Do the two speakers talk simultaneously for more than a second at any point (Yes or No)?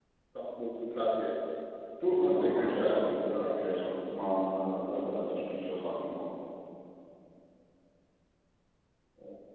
Yes